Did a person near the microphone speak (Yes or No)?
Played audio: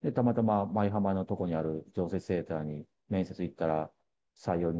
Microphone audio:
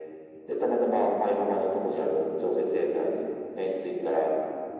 No